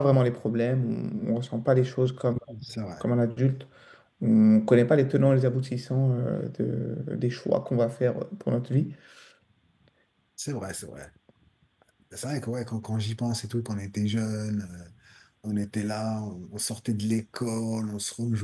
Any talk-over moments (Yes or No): No